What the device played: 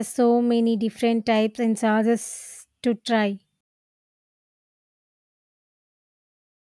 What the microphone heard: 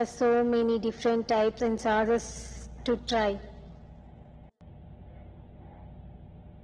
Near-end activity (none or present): none